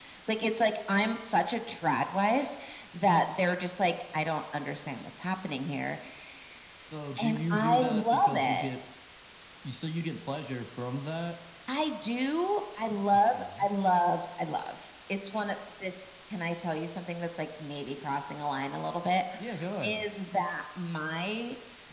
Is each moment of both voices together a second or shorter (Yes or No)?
No